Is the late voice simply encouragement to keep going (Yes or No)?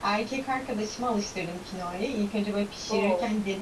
Yes